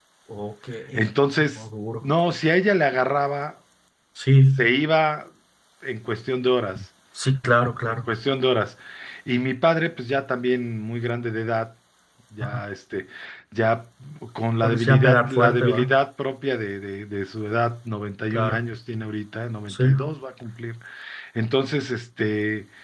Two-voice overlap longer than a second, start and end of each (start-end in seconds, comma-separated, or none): 14.6-15.9